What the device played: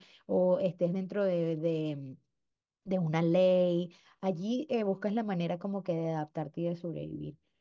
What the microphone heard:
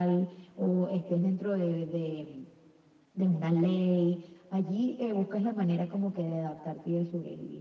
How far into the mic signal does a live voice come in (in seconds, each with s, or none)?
none